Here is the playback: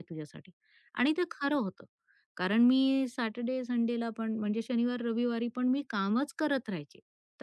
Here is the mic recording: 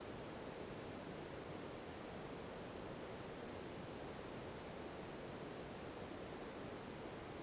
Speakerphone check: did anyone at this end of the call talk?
No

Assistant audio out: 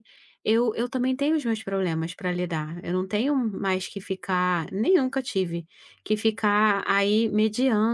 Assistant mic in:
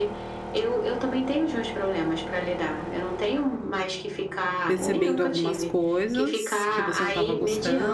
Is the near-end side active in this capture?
Yes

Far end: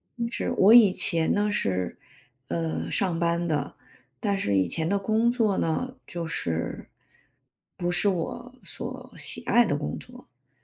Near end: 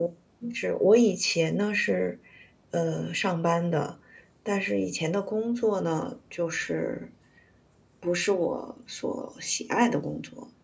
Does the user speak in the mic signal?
No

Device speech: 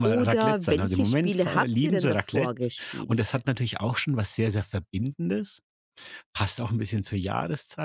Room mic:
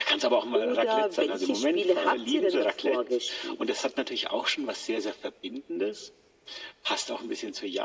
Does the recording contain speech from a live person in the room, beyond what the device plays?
No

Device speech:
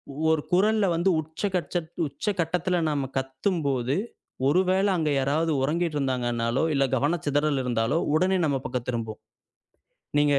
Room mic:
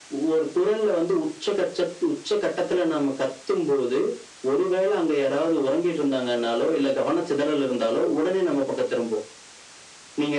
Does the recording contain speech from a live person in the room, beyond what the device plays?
No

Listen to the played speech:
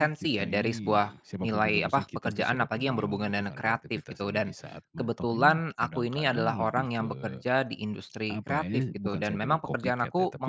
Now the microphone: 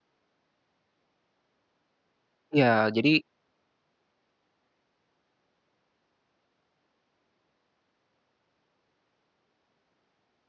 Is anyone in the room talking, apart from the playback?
Yes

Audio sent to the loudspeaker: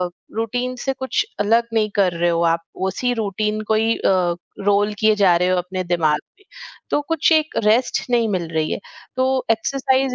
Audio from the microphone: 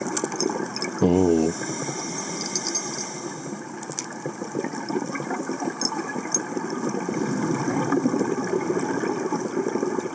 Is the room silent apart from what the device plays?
No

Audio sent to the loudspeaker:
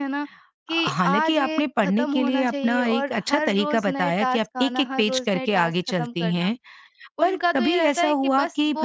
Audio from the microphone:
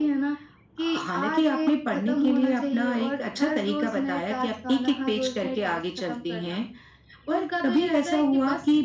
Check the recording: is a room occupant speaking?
No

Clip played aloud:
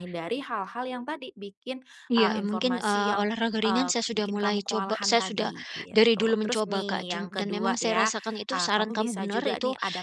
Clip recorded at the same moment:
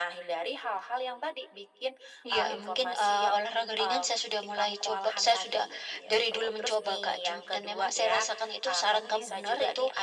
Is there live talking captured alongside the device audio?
No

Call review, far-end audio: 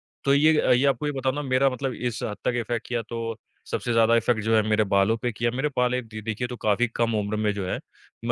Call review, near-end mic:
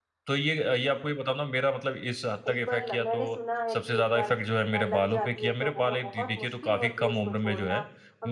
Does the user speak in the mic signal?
Yes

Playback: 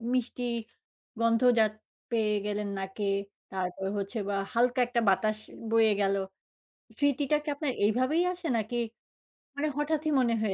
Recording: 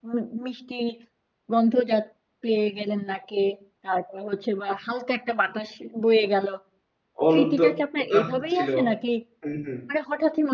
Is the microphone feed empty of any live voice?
No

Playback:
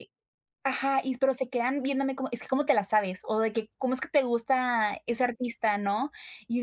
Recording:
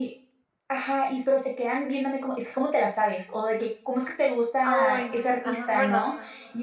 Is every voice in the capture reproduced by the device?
No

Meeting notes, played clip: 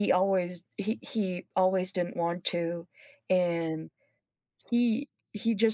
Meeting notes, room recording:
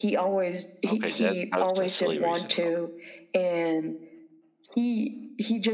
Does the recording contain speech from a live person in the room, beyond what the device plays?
Yes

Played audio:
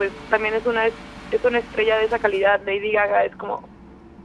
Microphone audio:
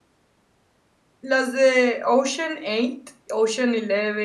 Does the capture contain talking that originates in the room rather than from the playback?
Yes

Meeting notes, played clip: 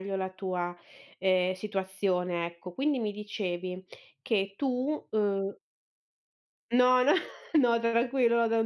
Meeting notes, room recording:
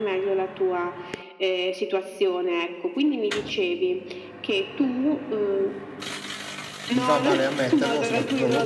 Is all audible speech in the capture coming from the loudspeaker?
No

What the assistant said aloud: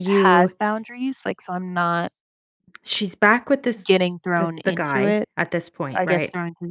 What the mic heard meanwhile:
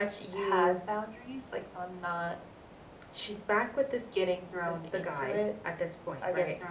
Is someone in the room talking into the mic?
No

